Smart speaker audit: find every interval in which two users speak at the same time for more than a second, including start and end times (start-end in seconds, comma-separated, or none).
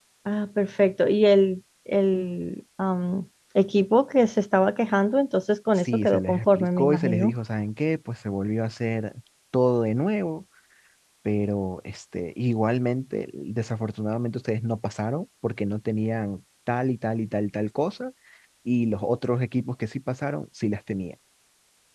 5.7-7.3